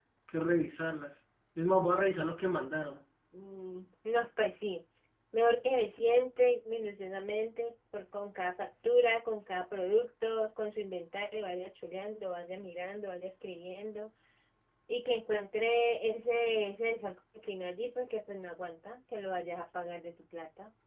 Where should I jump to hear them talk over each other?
none

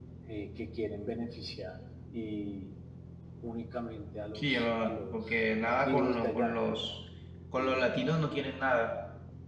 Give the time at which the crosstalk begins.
4 s

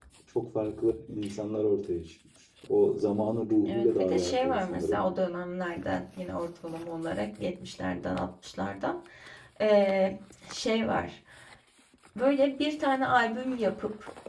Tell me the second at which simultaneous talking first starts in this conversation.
4 s

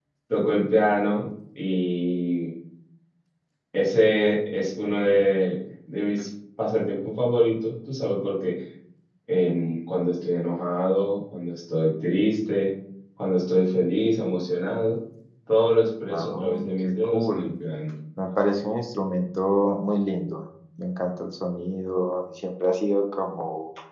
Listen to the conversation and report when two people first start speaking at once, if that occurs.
16 s

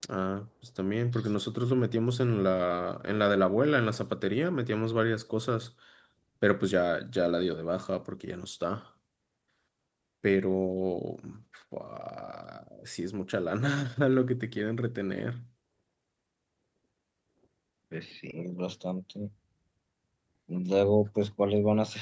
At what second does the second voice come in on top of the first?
none

